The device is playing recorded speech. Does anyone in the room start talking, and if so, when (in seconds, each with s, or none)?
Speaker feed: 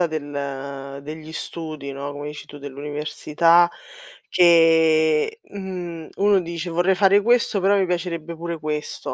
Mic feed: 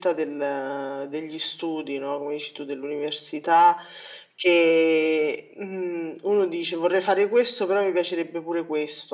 none